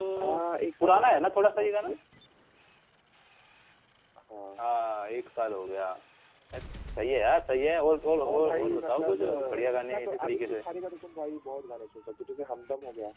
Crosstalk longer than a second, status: present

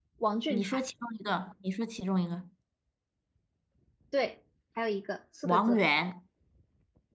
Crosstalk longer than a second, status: none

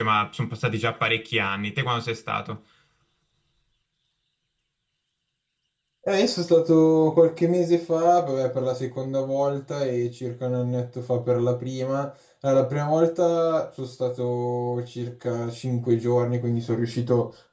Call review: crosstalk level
none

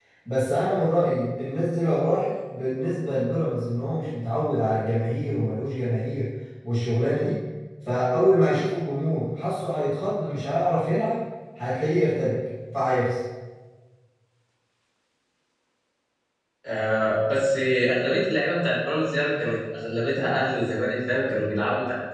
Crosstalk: none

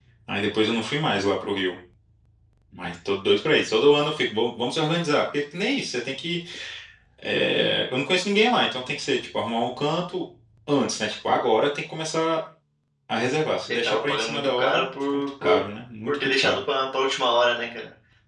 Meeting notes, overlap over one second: present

